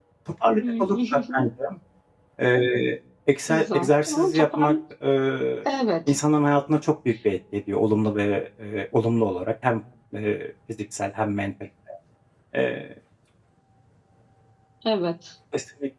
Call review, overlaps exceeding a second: present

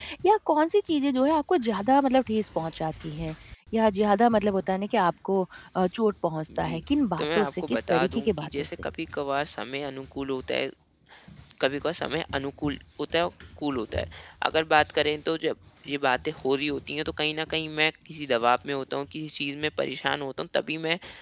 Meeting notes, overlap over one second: present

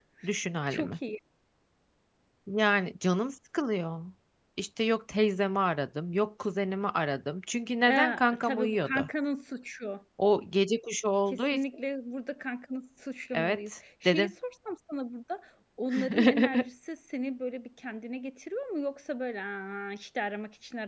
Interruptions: present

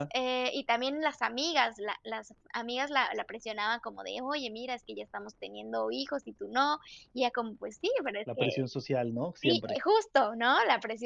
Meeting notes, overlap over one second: none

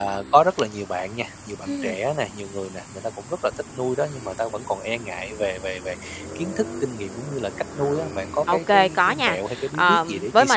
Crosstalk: present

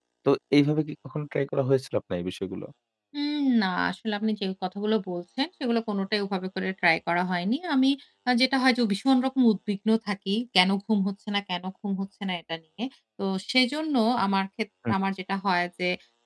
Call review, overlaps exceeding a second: none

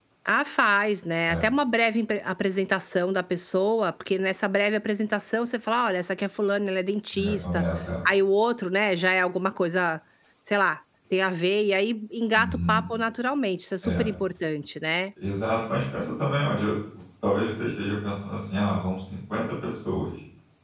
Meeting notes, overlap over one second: none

